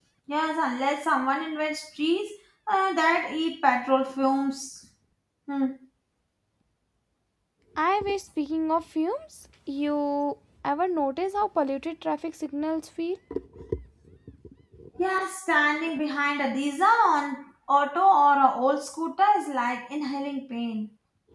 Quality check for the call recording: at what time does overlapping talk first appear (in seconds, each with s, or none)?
none